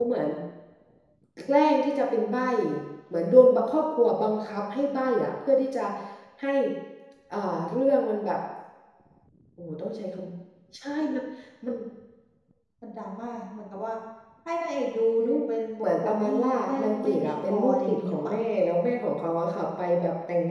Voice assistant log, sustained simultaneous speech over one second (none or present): present